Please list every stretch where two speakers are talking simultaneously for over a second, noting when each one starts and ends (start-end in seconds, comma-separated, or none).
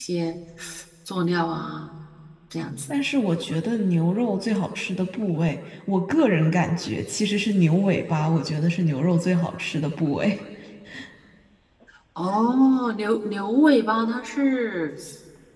none